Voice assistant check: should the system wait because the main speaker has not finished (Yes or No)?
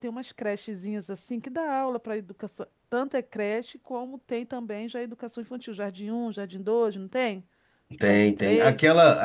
No